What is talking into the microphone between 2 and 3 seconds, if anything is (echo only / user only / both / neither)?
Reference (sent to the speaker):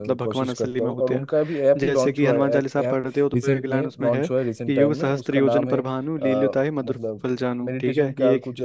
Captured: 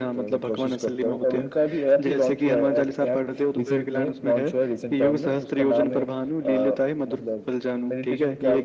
echo only